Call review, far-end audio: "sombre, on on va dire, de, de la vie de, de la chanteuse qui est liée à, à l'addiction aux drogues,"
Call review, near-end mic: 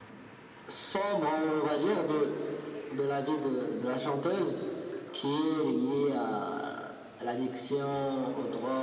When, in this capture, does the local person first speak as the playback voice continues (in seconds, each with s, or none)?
none